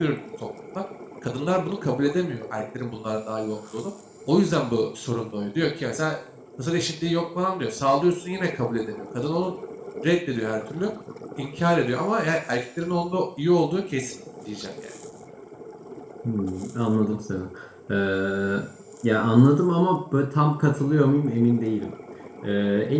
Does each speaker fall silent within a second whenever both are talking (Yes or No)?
Yes